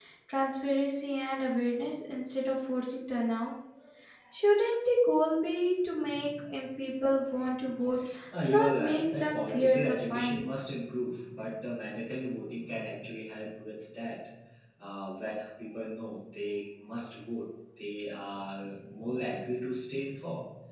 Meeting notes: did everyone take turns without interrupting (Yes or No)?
No